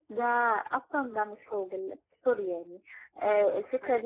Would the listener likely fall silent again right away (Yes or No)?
Yes